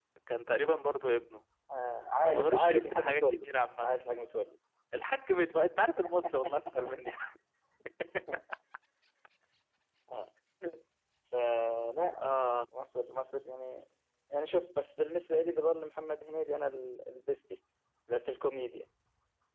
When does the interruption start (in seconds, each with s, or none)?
2.2 s